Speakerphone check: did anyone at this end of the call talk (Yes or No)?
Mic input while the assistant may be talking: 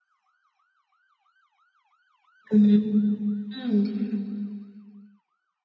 Yes